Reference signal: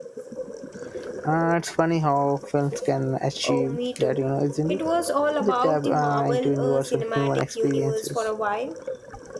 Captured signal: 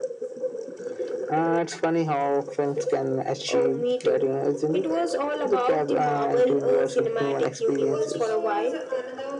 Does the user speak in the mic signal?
Yes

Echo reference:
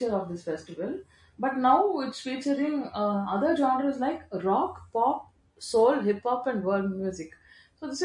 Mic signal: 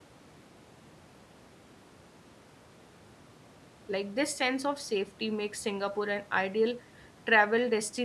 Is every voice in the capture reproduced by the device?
No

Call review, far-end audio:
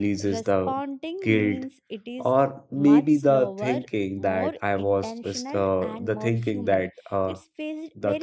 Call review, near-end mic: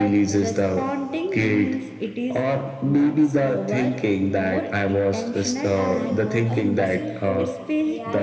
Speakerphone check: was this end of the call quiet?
No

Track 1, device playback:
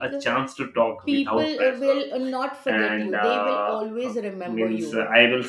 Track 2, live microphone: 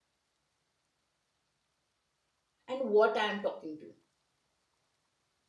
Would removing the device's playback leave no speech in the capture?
No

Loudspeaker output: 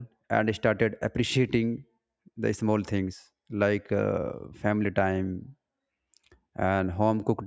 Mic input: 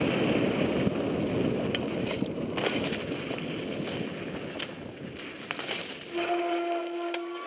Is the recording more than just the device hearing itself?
No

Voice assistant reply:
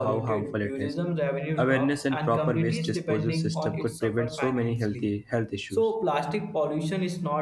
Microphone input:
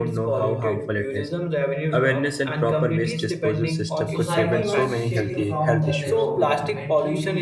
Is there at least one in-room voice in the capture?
Yes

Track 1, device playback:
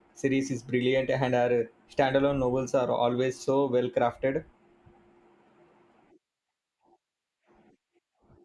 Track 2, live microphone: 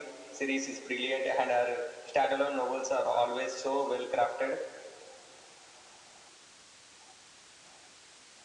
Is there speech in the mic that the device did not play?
No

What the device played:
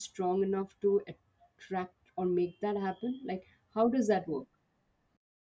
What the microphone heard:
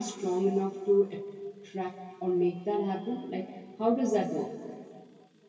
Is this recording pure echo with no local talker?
Yes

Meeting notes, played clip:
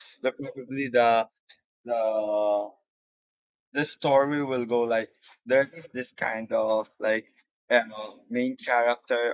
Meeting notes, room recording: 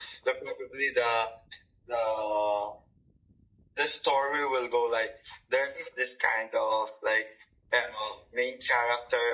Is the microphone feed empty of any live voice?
Yes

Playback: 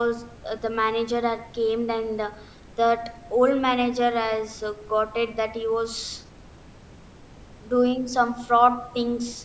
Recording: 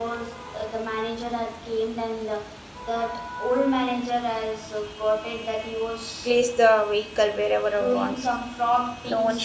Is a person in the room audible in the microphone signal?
Yes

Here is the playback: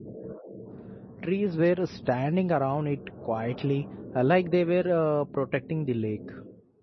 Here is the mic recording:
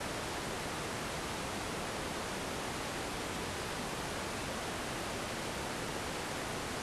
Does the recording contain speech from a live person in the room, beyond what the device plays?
No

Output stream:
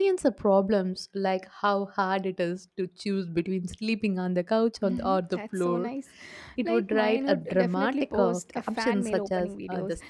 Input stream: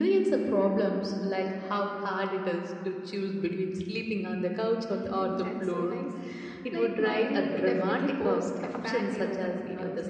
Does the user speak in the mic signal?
No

